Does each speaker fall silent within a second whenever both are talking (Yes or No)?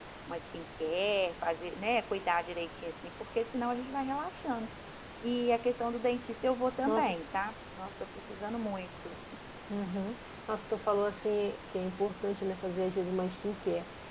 Yes